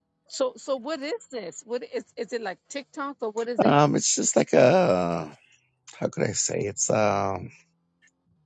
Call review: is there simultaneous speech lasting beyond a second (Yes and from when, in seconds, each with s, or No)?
No